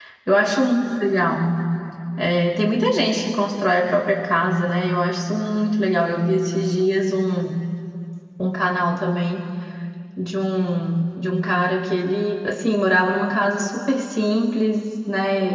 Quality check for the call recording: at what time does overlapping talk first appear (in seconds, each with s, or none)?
none